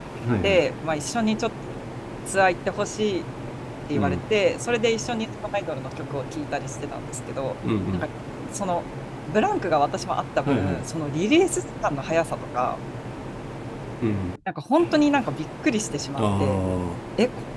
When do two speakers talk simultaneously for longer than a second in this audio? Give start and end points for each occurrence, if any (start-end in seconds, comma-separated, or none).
none